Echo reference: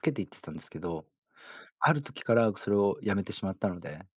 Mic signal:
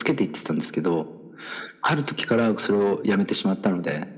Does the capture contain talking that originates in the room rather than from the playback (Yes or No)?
No